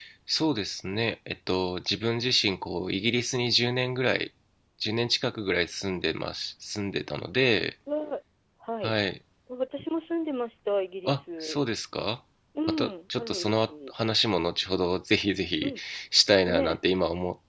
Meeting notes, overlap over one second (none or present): present